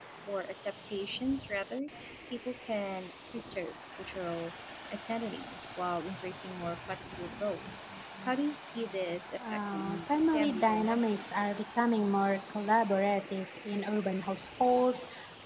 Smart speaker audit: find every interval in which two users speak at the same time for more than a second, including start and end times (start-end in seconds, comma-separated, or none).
9.5-11.4